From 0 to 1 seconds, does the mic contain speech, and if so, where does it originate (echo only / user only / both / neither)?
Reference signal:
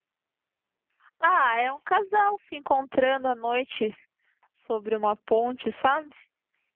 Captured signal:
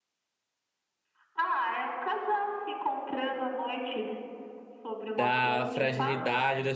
neither